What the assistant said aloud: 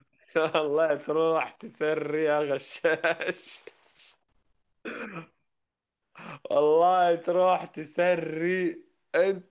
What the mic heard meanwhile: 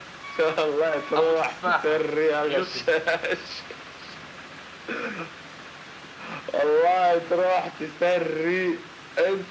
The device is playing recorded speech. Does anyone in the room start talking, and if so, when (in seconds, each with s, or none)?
1.1 s